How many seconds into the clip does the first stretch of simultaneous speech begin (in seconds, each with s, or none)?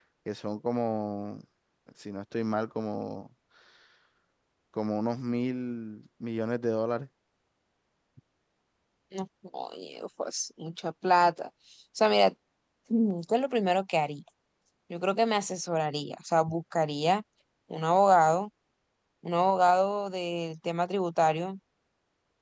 none